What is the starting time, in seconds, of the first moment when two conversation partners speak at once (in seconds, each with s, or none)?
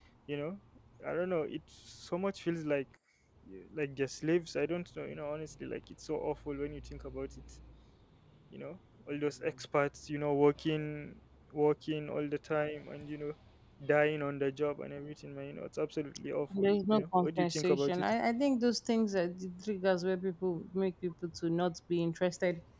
16.5 s